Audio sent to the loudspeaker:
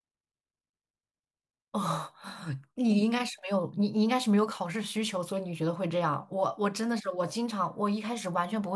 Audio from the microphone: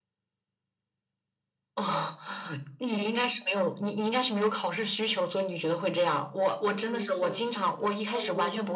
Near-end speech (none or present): present